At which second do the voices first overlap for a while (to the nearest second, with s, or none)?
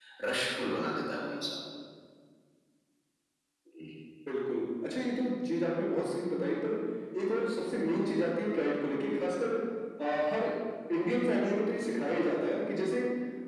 none